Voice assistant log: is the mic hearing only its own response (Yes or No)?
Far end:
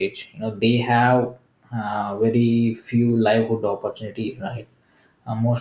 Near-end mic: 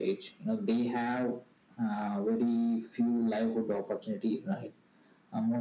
Yes